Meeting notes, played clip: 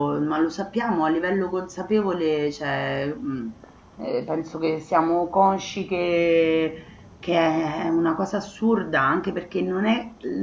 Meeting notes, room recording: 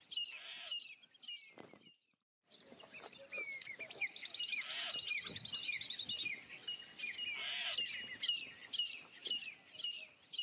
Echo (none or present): none